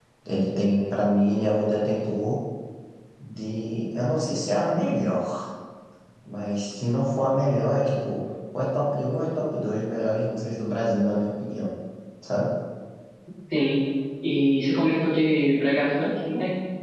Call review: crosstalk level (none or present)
none